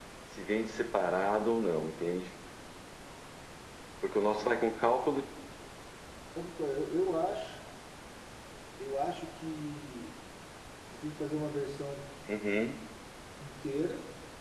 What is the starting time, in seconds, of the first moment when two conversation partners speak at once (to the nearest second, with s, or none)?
none